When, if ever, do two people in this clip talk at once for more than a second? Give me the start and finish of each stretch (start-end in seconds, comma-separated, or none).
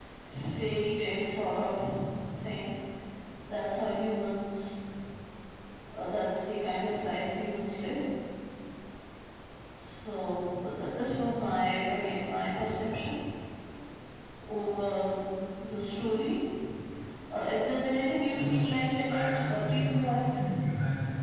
19.1-20.4